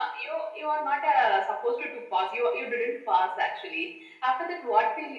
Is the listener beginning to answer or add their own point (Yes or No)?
No